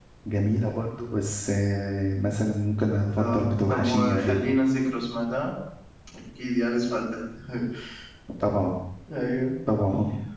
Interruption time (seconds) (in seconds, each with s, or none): 3.1 s